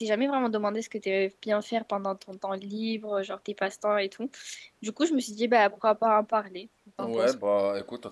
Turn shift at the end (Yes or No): Yes